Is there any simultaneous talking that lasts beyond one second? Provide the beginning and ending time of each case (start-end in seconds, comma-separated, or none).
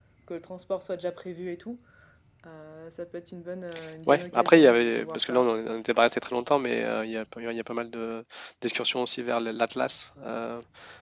4.1-5.4